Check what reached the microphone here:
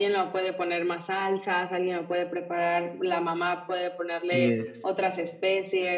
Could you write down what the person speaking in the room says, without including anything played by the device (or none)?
Y es